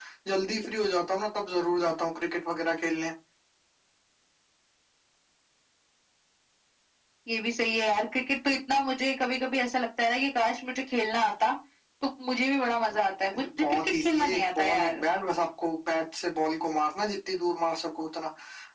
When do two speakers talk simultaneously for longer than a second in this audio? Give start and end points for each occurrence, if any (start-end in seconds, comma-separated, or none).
13.6-15.0